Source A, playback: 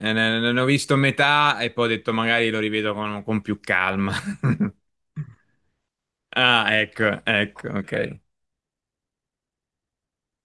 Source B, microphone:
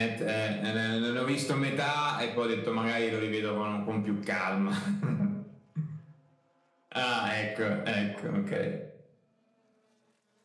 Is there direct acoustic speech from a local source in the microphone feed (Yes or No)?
No